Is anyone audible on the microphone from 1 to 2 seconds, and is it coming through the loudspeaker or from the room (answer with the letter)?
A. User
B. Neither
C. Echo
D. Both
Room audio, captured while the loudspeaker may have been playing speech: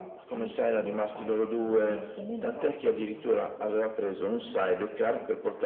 C